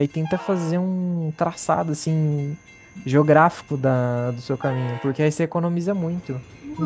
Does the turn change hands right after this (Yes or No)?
Yes